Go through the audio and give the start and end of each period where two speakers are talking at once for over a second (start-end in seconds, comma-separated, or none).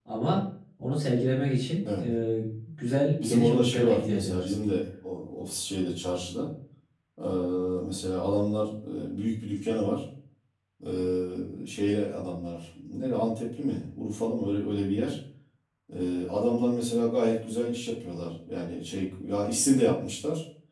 3.2-4.5